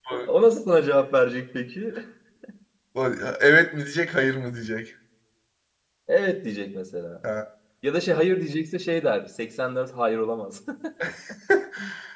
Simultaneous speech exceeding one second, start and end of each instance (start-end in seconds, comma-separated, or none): none